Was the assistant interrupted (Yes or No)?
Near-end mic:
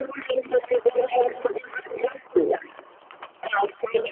No